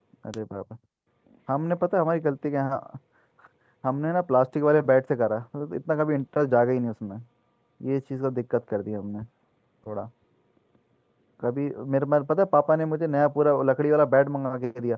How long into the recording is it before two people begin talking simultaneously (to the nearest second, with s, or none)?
none